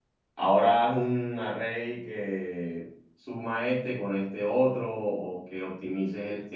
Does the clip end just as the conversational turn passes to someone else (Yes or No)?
No